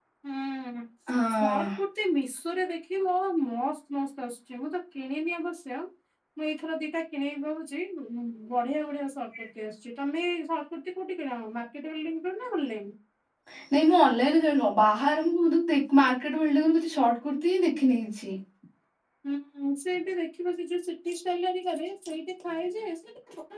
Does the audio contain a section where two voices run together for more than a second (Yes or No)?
No